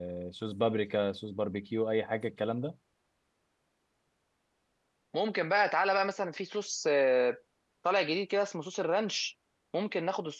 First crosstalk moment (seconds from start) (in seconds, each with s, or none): none